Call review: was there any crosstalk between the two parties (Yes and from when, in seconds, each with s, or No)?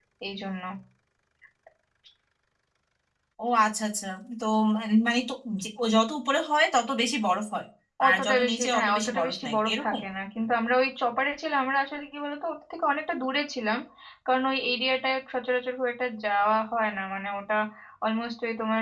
Yes, from 8.1 s